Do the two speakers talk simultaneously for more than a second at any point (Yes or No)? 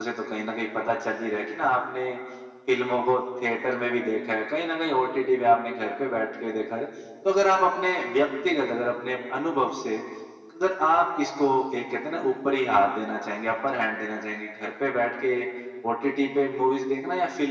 No